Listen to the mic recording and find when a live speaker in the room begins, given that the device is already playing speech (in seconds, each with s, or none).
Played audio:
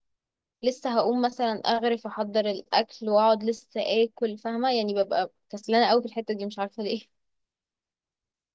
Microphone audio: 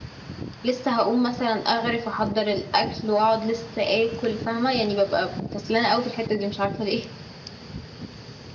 none